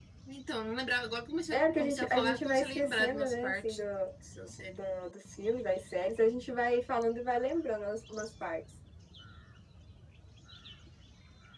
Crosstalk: present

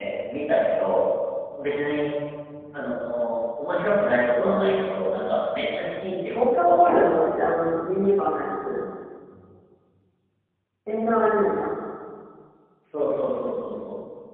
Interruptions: present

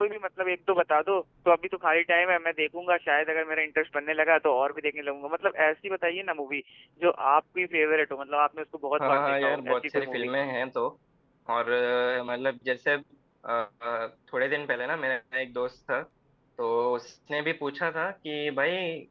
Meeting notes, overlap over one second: present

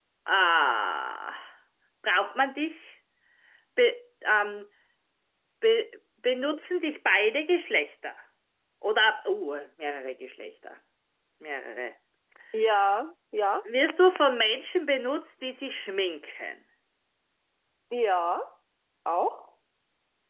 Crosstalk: none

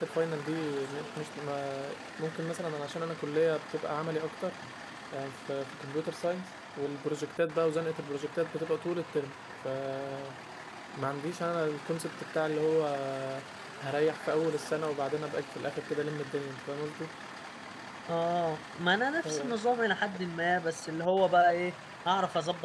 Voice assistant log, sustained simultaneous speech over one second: none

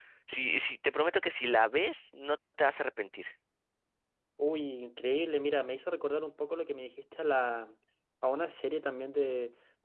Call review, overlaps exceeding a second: none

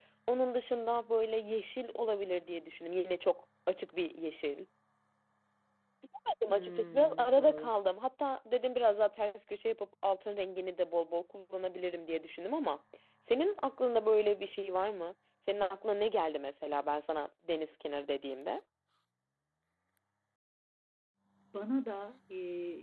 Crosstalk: present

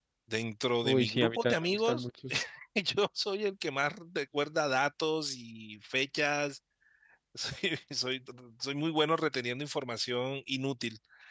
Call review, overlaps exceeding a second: present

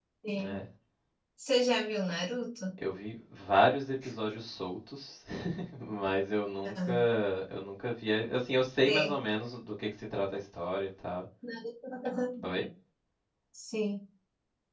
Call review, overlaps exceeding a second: none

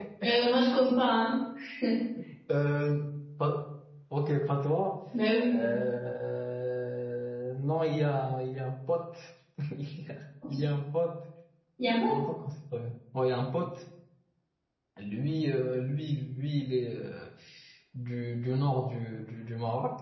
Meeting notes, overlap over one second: none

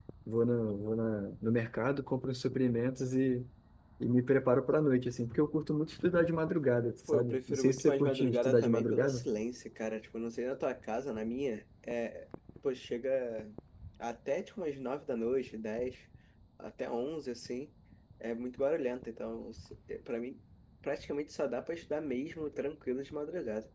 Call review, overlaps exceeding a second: present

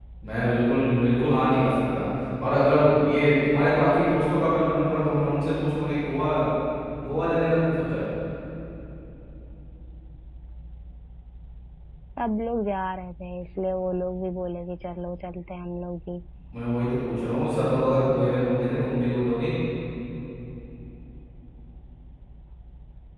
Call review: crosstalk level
none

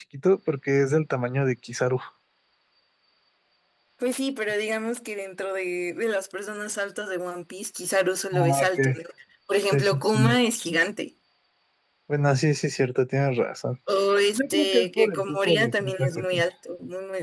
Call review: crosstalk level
present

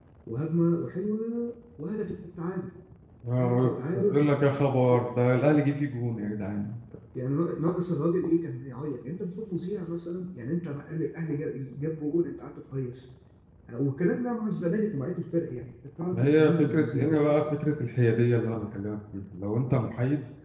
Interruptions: present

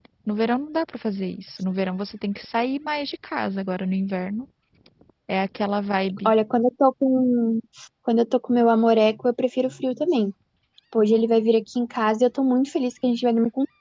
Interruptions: none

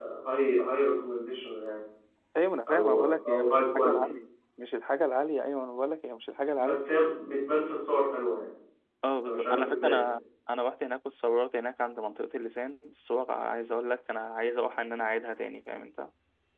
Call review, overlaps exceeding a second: present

